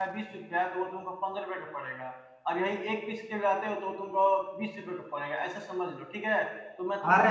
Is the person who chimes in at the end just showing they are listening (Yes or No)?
No